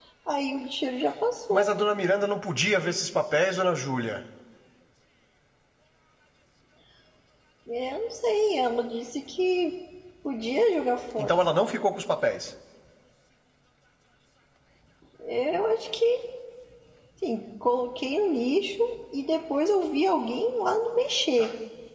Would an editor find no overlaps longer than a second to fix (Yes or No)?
Yes